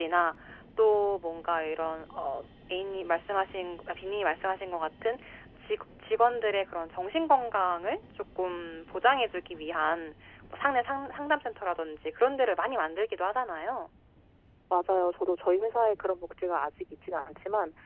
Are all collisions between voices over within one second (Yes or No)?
Yes